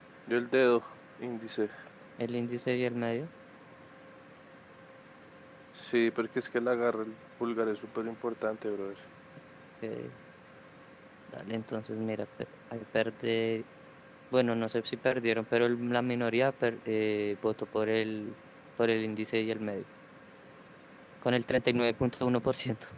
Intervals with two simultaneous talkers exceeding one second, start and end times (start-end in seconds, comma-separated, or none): none